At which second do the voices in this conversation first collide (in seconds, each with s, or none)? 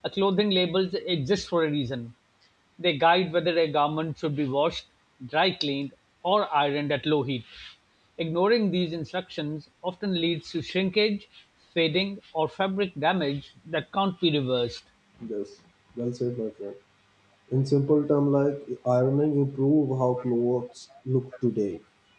none